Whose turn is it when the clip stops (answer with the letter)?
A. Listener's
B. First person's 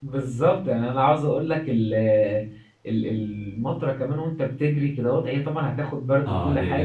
A